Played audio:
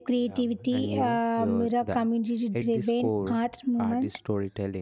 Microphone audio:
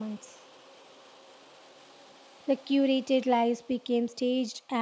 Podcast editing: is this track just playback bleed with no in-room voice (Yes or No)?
No